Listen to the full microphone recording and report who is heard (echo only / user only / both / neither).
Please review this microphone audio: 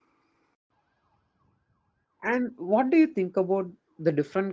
user only